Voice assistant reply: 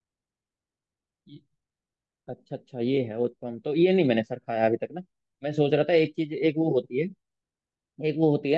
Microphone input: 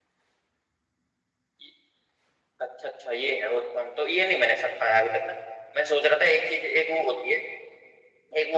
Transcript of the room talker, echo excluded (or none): none